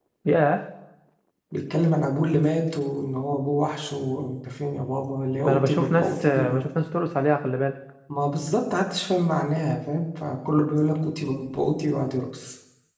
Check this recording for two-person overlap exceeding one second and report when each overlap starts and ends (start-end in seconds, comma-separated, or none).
5.4-6.6